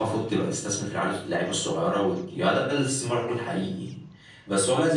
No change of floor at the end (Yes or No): Yes